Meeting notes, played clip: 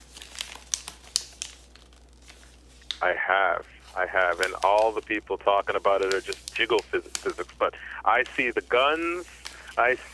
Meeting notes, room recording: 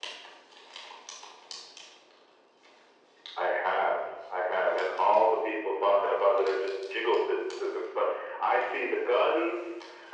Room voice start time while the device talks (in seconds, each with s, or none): none